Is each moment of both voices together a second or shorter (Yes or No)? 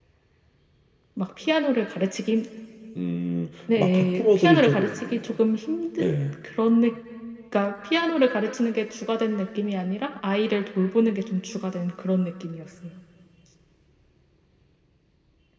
No